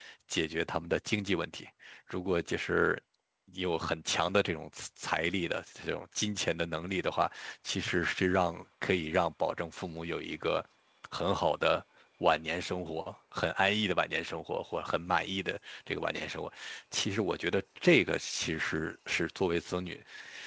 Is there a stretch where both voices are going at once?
No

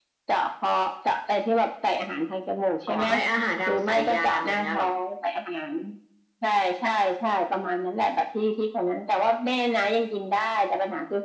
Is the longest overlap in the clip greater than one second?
Yes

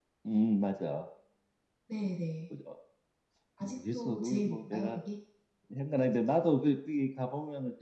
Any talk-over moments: Yes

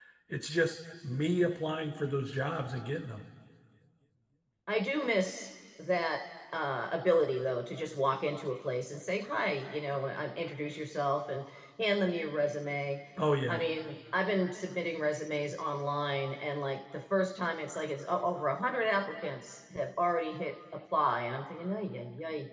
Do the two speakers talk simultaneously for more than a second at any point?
No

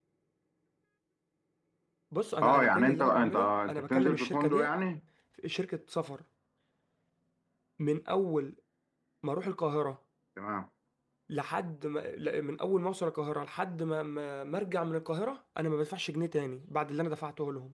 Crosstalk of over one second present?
Yes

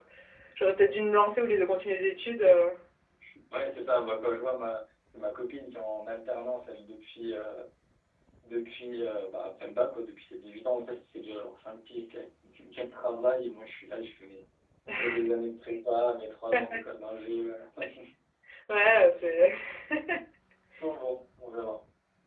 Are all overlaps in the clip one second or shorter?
Yes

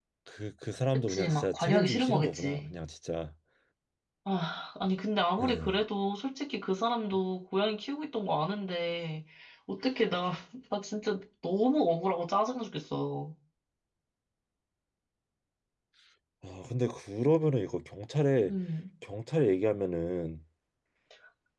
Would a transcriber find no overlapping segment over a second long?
No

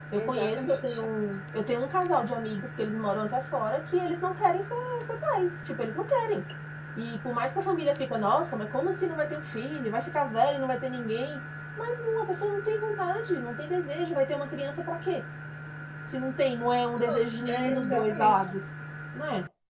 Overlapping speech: Yes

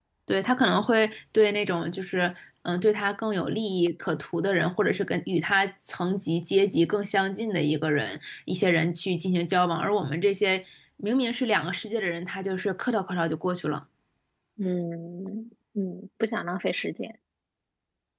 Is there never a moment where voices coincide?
Yes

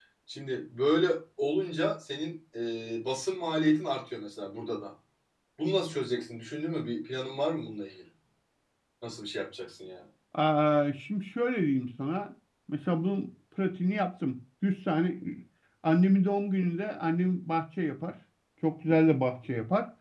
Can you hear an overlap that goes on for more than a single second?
No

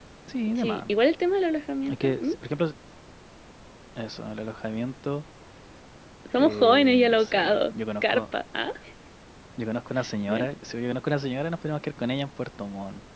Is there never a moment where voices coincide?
No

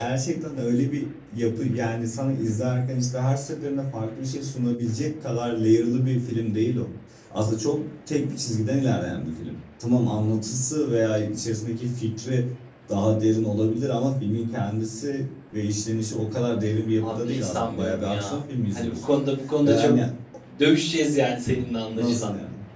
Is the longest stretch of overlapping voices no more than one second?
No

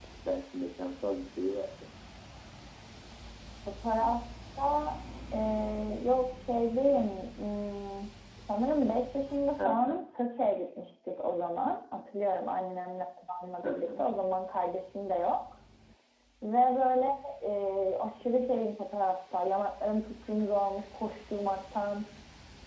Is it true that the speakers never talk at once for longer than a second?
Yes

